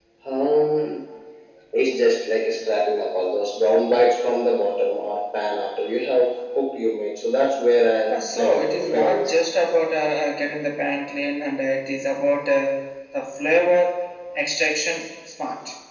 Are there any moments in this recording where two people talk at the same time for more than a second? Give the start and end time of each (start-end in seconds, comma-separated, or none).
8.1-9.3